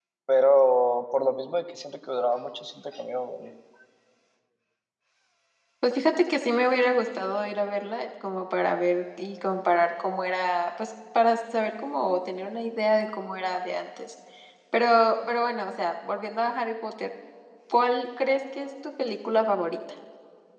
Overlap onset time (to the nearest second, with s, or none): none